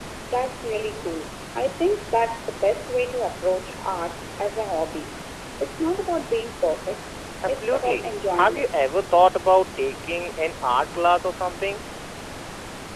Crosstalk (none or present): present